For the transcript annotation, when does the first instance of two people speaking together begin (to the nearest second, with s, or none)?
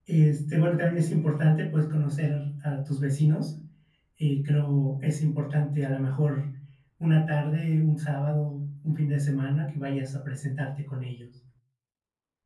none